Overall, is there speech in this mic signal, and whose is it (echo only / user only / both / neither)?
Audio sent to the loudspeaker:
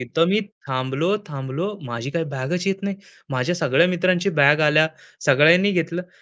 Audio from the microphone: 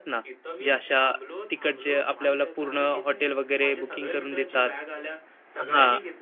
both